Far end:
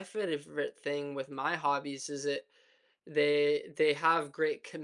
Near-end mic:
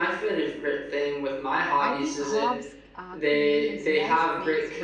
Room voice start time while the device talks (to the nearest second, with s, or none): 2 s